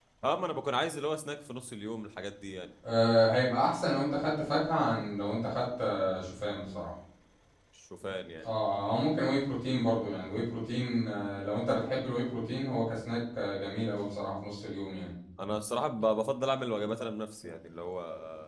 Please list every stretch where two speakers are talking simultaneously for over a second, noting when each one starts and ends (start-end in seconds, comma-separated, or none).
none